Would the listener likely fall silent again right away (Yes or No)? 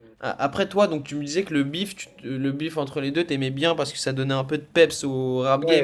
No